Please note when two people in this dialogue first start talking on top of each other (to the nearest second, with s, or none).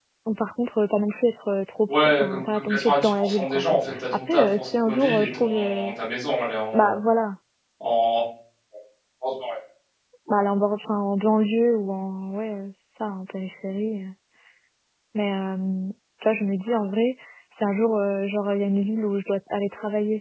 2 s